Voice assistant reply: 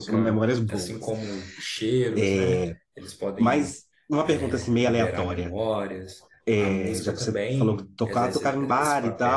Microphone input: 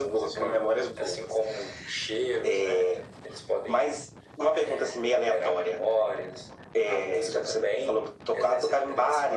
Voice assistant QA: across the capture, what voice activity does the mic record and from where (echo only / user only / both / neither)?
echo only